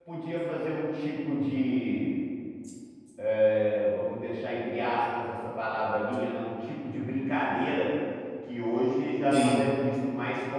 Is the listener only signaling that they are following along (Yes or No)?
Yes